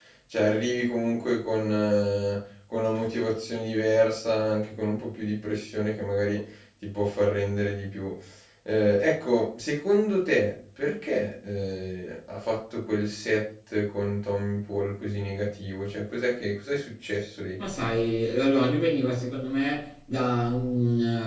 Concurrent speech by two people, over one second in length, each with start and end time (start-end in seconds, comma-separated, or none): none